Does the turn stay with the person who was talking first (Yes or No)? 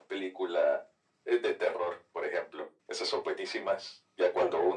Yes